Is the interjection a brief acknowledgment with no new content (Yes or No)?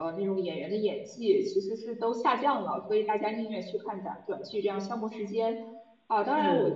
Yes